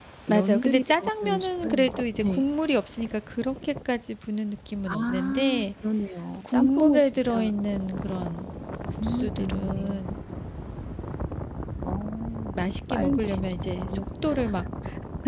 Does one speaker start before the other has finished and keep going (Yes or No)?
Yes